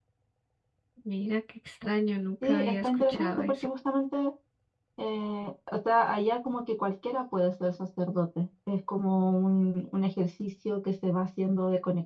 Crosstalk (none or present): present